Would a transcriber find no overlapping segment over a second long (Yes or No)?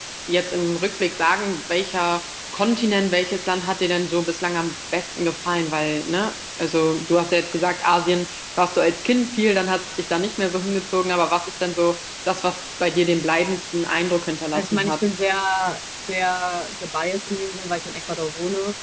Yes